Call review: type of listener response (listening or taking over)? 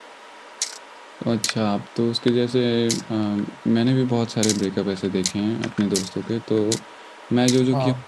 listening